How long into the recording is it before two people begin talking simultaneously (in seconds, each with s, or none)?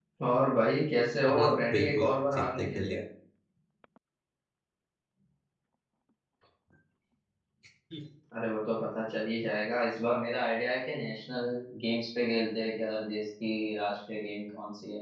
1.3 s